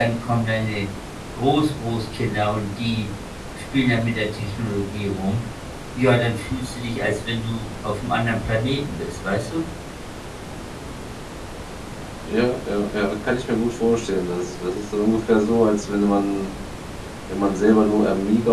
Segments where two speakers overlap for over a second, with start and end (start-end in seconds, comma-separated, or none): none